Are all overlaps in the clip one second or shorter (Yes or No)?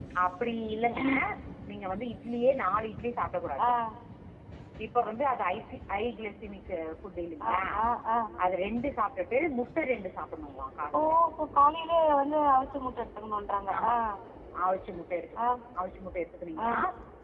Yes